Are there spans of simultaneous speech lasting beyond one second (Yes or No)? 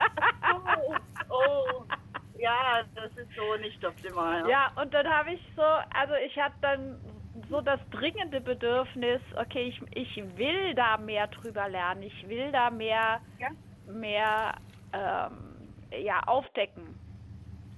No